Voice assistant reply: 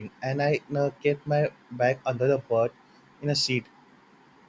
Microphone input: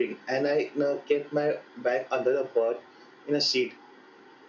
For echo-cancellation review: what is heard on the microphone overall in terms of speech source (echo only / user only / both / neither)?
echo only